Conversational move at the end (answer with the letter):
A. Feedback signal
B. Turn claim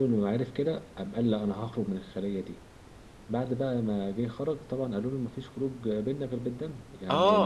B